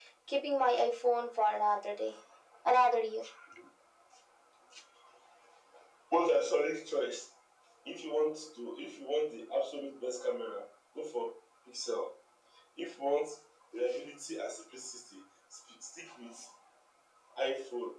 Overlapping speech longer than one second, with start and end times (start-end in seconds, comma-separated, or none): none